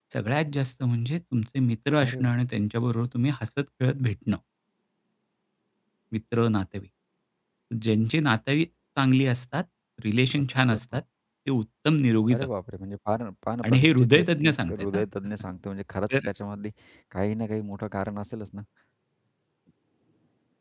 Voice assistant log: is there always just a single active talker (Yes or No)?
No